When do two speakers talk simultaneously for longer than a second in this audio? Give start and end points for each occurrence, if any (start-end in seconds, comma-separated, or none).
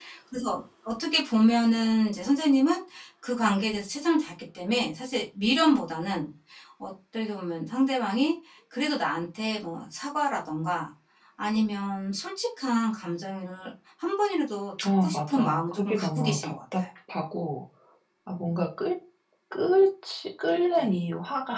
14.8-16.8